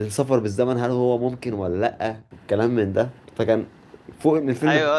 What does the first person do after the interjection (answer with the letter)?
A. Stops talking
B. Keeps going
A